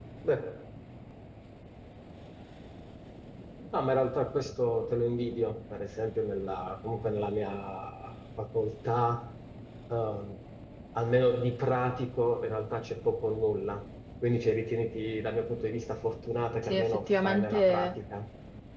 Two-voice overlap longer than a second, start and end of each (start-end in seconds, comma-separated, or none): 16.6-18.0